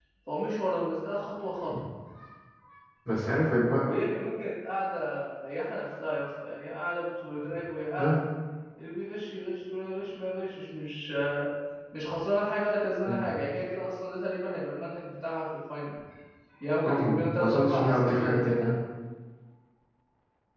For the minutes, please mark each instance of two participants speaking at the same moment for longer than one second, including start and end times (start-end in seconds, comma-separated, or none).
16.9-18.8